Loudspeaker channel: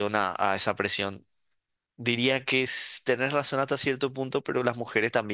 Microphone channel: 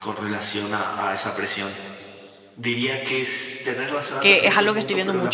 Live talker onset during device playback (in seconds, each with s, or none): 4.2 s